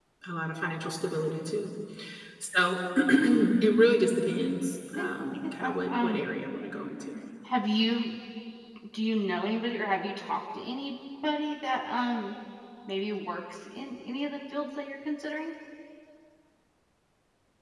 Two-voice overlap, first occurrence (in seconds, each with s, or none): 4.9 s